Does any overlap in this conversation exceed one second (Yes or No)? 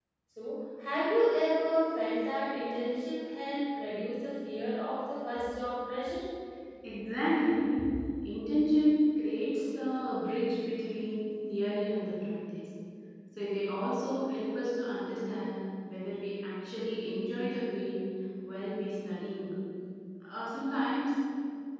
No